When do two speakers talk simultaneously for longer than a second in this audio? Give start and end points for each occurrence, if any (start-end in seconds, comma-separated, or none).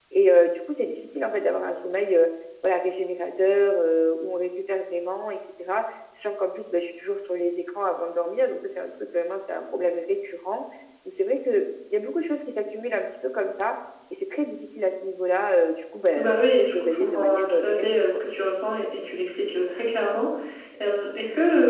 16.2-18.2